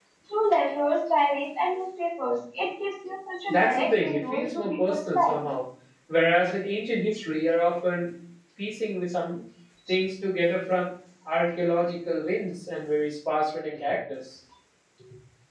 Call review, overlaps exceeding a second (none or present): present